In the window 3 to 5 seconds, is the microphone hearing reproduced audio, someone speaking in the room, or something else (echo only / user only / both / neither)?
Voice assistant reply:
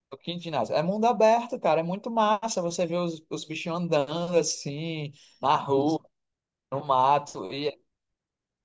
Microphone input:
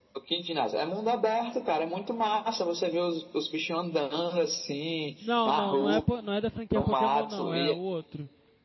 echo only